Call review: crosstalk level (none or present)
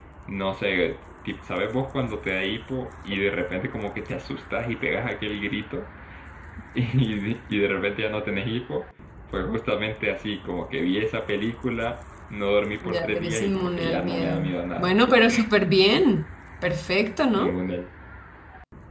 present